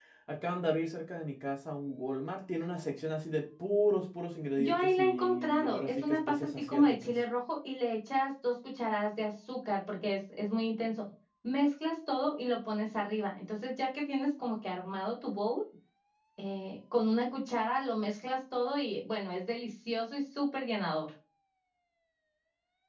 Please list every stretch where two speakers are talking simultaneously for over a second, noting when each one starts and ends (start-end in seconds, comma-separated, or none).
4.6-7.1